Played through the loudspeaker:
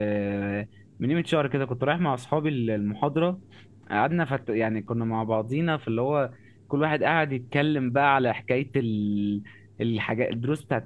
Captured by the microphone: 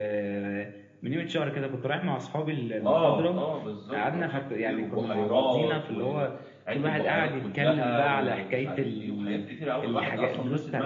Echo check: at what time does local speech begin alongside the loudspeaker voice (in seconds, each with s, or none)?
2.8 s